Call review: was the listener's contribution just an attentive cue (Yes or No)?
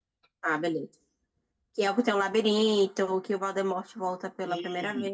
No